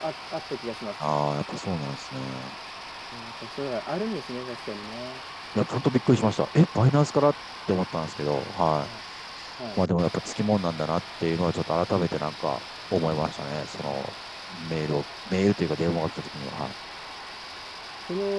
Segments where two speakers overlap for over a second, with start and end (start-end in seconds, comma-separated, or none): none